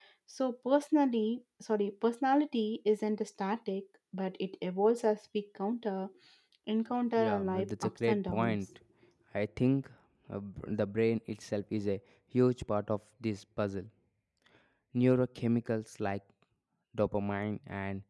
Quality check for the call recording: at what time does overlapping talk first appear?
7.2 s

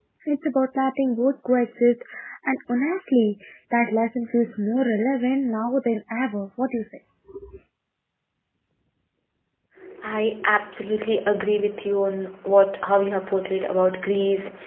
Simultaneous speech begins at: none

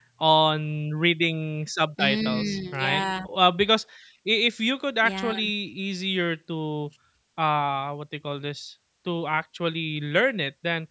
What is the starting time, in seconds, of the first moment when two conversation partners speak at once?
2.0 s

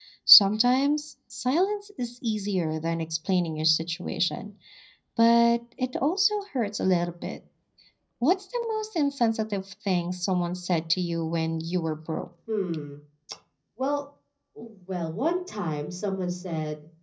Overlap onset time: none

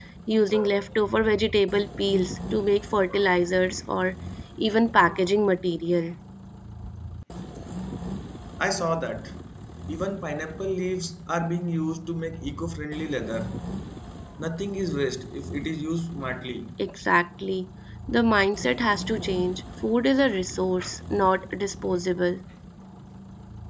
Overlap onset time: none

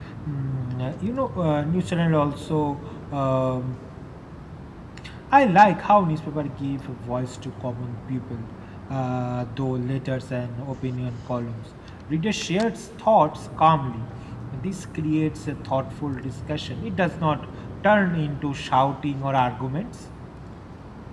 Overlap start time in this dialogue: none

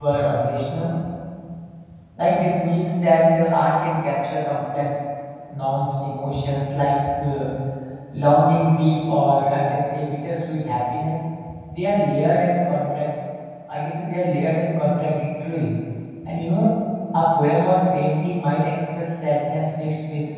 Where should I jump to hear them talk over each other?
none

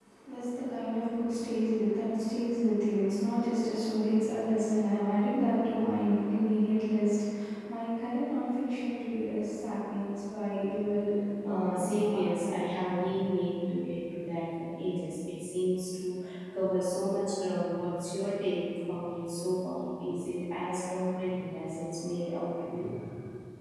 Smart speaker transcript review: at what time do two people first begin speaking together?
11.4 s

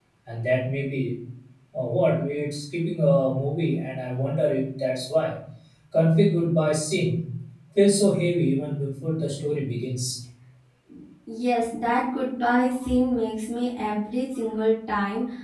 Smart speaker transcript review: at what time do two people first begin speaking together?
none

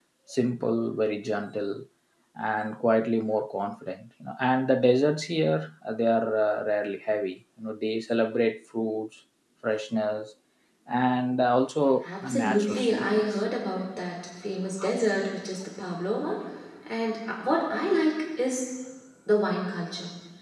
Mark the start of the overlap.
11.9 s

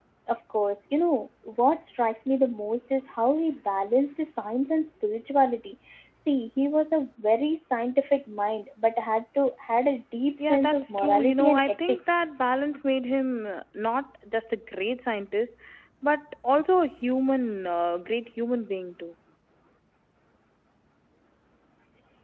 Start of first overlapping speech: 10.4 s

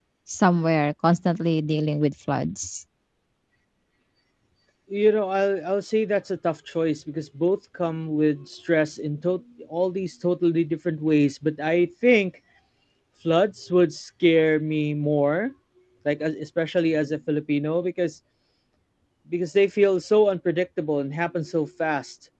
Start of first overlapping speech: none

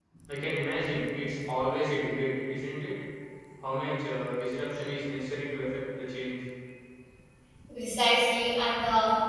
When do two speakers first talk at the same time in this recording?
none

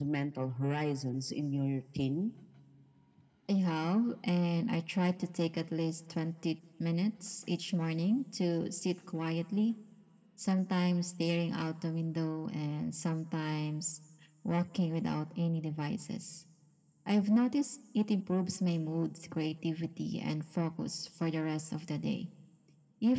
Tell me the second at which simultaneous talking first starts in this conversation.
none

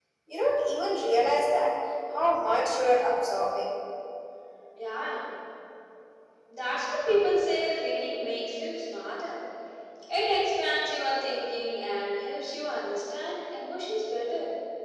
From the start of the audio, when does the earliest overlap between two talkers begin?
none

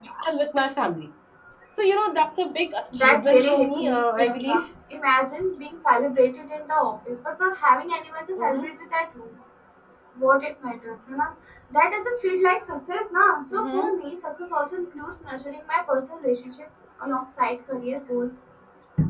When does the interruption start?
2.9 s

